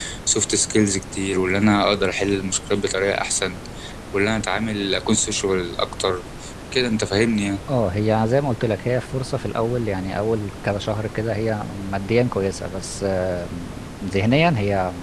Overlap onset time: none

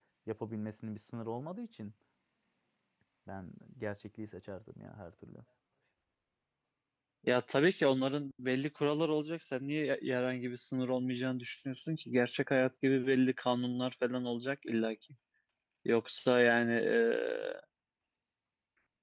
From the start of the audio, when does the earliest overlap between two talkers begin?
none

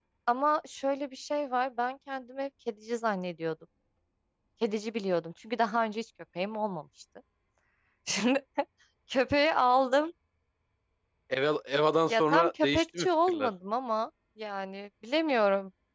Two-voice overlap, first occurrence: 12 s

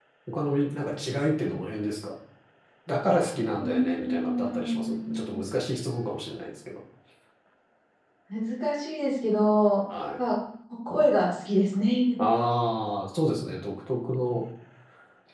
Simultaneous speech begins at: 4 s

